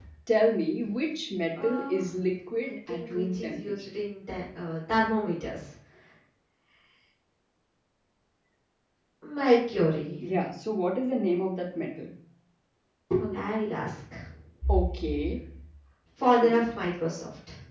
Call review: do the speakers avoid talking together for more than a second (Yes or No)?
No